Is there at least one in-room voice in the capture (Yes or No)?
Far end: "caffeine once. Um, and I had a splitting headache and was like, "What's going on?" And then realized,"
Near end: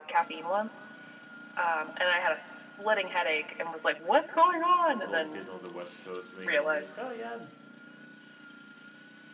Yes